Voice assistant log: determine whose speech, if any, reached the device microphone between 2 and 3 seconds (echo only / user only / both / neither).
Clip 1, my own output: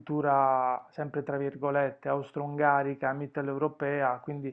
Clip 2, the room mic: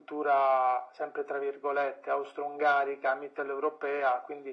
echo only